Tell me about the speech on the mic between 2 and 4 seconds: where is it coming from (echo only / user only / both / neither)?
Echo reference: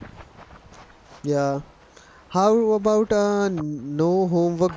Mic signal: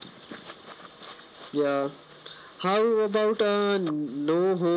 echo only